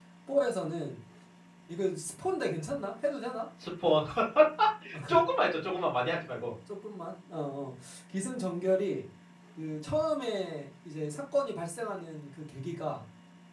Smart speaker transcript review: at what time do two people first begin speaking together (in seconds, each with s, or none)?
none